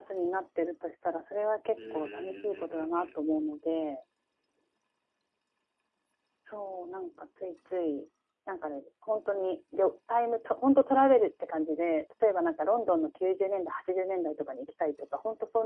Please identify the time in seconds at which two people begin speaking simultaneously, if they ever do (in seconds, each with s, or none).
1.8 s